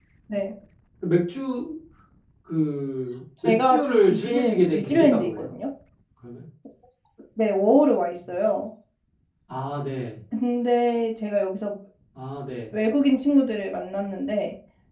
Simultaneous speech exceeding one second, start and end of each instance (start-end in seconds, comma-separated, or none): 3.5-5.5